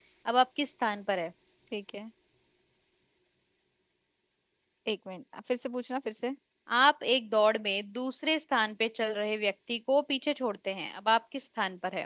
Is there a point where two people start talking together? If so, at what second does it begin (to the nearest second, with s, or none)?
none